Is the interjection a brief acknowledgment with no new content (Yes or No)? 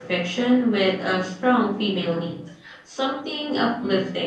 No